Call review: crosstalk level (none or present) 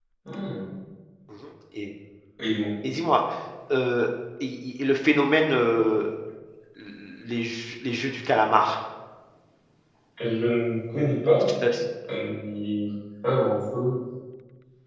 none